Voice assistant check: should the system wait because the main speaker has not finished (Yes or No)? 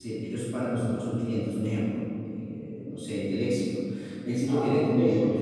No